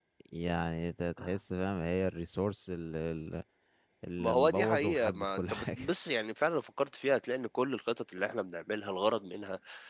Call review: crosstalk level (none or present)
present